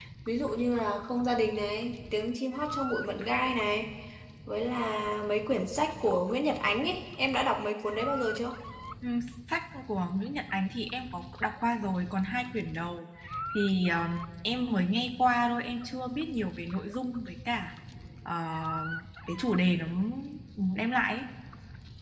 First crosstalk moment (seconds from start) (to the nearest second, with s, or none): none